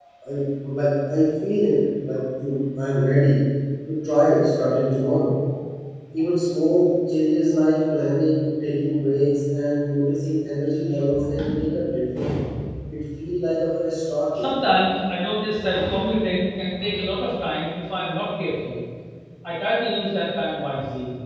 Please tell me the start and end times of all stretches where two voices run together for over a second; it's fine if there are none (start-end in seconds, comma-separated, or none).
none